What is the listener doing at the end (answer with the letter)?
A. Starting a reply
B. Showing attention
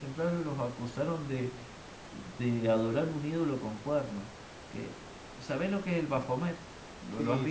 A